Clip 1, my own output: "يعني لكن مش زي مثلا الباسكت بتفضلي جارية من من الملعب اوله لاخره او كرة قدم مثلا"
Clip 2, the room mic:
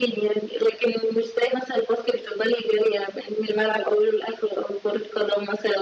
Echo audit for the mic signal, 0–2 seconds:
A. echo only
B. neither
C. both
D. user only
A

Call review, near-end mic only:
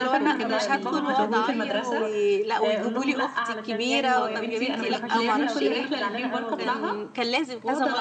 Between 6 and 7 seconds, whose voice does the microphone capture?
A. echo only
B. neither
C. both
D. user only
C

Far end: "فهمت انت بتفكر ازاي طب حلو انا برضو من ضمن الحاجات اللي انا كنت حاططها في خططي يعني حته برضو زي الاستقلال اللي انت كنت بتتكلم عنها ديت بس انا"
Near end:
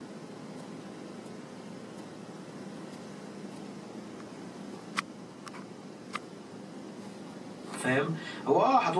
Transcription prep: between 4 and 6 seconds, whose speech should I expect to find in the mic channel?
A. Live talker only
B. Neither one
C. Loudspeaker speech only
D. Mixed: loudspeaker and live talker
B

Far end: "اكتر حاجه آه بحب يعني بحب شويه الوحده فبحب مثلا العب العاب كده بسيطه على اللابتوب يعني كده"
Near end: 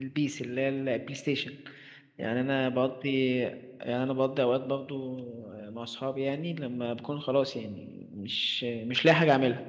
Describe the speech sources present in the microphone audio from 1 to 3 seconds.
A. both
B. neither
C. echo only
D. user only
D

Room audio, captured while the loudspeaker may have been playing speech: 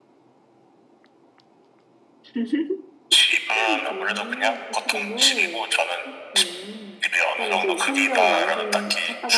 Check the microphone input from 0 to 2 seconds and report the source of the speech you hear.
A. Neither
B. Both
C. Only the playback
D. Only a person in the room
A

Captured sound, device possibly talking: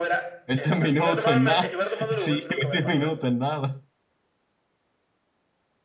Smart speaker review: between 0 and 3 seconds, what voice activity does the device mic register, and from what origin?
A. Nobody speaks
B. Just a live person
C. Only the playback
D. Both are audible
D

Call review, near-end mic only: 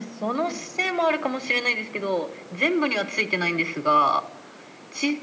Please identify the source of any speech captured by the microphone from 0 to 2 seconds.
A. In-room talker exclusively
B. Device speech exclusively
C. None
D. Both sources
B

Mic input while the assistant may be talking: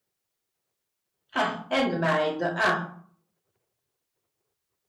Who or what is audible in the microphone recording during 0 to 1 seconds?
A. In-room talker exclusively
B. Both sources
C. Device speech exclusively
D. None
D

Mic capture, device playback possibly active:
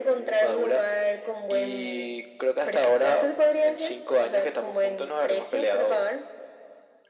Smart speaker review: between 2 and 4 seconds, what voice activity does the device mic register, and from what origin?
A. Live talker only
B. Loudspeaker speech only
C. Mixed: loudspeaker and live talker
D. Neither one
B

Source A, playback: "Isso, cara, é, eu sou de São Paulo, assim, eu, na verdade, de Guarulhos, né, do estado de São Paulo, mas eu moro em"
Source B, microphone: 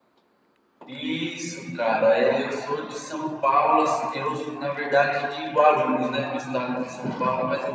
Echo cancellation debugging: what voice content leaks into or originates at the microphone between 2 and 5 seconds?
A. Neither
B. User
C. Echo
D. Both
C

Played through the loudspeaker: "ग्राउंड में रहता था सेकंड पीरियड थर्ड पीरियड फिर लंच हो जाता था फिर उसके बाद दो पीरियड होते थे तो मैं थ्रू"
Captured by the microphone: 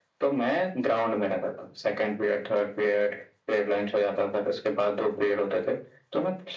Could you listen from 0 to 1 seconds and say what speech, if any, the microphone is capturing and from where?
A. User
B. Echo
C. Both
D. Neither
B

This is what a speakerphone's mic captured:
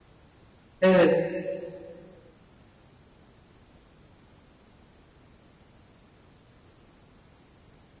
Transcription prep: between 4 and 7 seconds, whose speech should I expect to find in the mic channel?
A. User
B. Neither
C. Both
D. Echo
B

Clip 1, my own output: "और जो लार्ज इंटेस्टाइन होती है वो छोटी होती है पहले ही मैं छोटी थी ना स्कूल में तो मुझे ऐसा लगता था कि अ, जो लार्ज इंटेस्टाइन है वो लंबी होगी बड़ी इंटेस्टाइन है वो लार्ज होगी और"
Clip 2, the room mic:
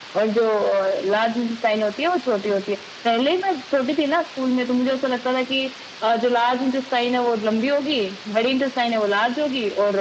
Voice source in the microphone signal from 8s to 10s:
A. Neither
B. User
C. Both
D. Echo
D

